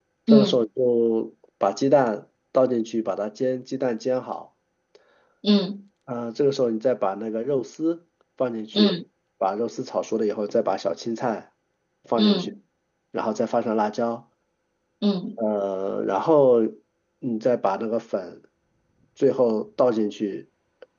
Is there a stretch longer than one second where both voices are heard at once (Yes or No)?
No